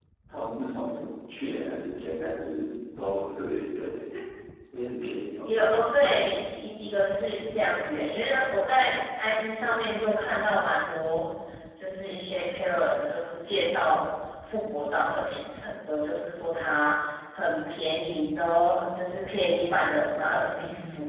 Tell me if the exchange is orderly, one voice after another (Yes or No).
Yes